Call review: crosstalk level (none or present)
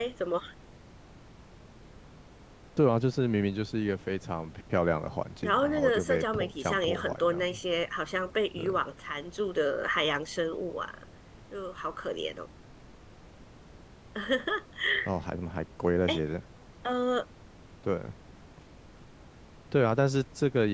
present